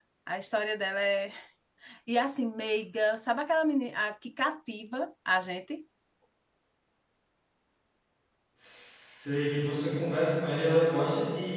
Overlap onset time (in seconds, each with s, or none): none